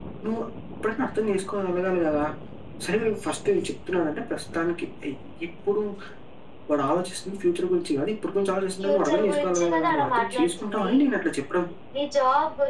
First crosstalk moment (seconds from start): 8.8 s

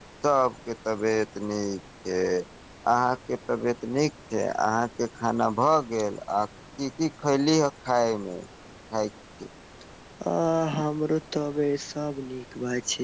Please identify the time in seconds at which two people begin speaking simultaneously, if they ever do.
none

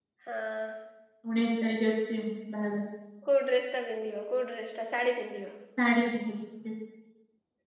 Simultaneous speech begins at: none

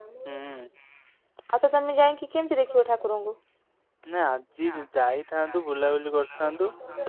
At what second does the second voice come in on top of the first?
none

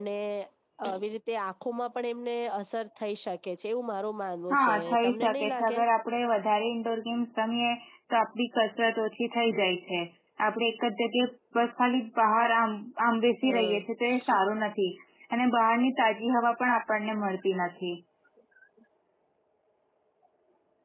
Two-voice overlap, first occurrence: 4.5 s

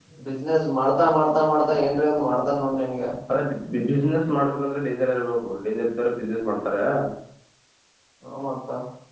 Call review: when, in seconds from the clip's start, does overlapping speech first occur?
none

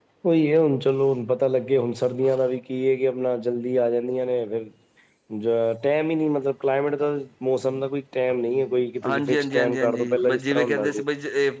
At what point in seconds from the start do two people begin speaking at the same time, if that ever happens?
9.0 s

